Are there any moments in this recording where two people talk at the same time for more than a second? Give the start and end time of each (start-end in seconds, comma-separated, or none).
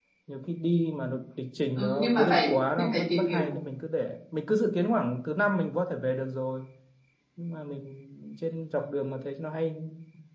1.8-3.6